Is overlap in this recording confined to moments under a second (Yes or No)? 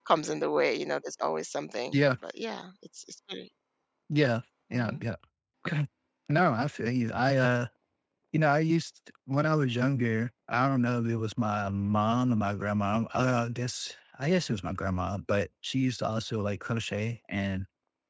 Yes